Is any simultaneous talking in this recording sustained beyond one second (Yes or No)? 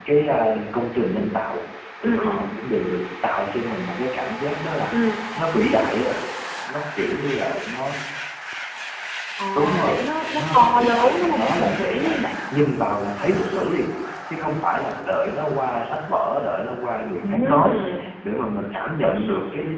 Yes